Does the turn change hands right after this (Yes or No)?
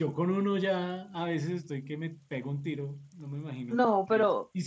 Yes